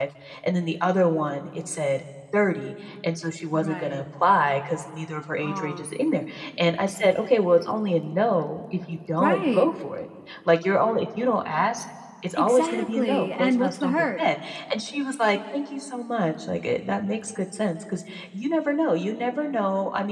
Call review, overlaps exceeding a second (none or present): present